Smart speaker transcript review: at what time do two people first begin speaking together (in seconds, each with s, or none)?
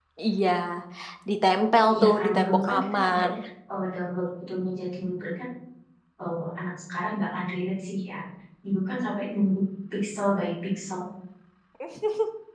1.9 s